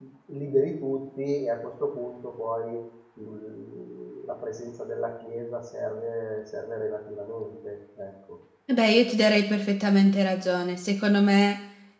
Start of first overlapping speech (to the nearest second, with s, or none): none